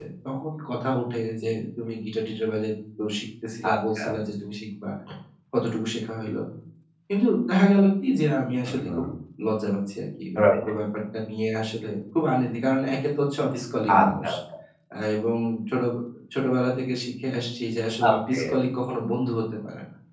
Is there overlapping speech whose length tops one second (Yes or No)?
No